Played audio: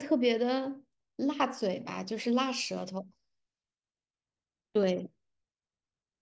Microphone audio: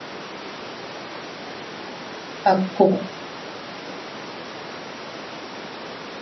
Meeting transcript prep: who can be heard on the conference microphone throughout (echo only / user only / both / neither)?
user only